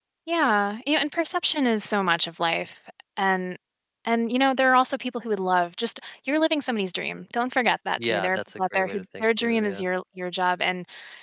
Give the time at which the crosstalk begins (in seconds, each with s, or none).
8.0 s